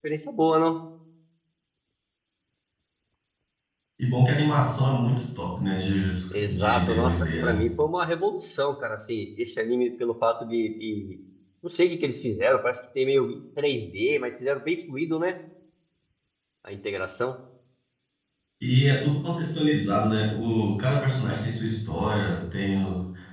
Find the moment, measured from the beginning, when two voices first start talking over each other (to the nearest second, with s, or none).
6 s